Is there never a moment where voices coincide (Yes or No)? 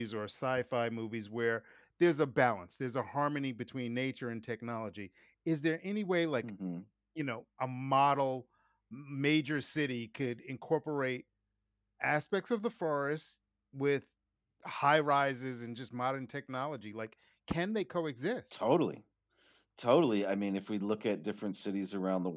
Yes